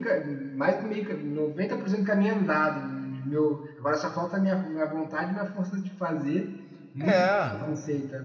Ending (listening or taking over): listening